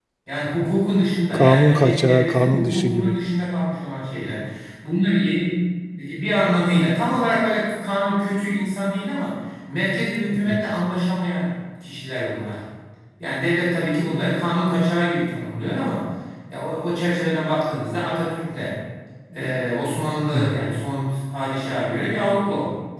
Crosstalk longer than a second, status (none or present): present